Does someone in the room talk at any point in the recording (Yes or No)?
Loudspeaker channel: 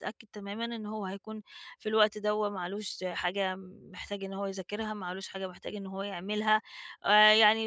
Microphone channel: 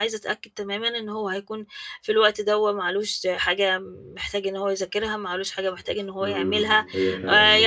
Yes